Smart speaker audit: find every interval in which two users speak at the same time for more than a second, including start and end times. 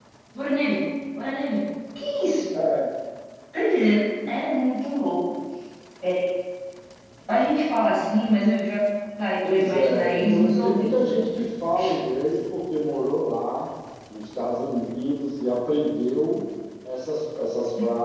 9.4-11.2

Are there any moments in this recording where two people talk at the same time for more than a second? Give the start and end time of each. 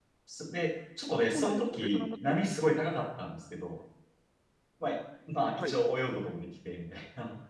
1.1-2.3

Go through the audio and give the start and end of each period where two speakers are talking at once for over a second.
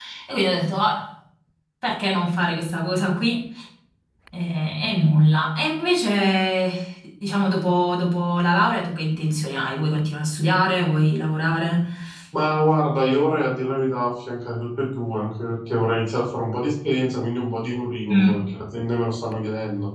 none

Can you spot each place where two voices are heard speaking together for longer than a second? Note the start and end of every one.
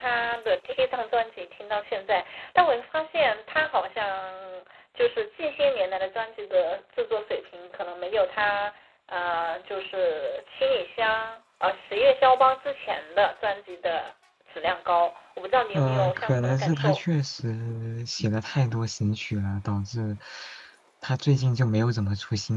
15.7-17.0

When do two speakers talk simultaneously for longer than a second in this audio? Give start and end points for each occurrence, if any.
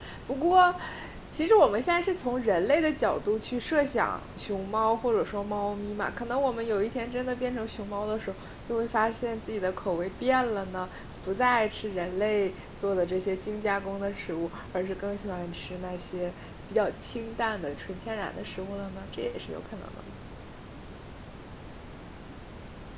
none

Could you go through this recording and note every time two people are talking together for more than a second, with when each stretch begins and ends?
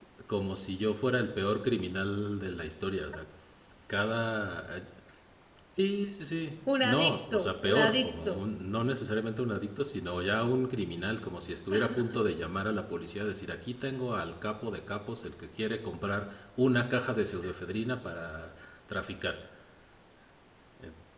6.8-8.4

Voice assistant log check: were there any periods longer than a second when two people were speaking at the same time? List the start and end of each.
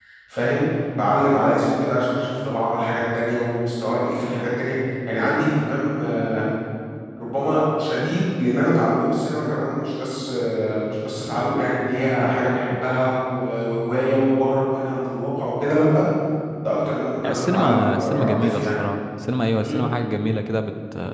17.2-18.7

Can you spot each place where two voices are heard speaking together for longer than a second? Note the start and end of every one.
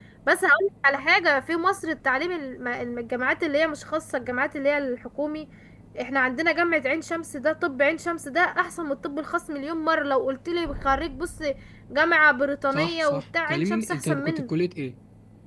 12.7-14.5

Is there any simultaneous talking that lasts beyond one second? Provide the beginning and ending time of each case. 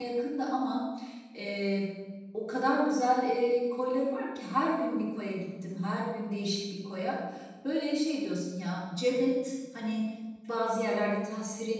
none

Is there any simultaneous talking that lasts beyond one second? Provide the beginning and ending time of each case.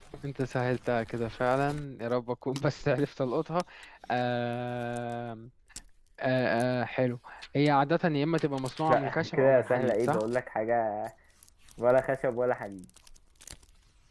8.9-10.2

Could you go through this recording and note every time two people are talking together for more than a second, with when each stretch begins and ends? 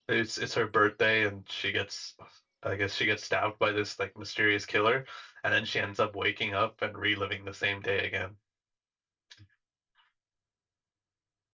none

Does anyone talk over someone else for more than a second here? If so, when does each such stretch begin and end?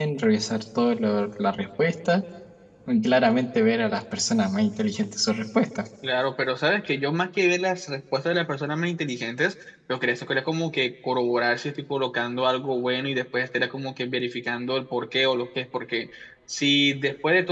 none

